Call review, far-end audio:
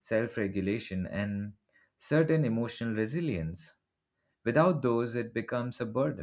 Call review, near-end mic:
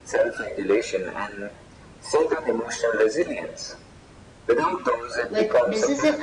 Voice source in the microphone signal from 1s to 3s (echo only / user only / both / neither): echo only